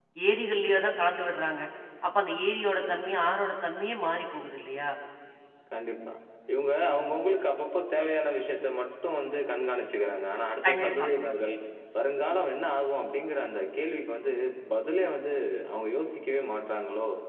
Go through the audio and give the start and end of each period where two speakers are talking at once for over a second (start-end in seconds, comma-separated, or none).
none